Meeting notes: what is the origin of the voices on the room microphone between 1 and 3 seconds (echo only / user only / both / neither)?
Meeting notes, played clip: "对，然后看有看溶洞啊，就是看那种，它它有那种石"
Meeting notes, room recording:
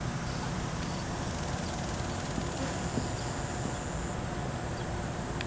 neither